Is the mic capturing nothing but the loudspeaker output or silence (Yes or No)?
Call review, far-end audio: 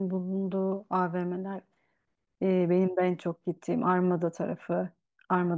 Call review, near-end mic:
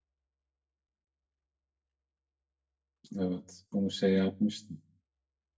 No